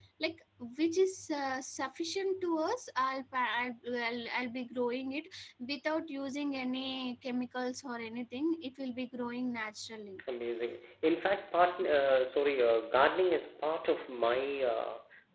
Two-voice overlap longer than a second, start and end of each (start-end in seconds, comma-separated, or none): none